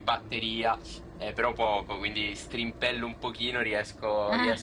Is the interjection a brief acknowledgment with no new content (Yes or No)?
Yes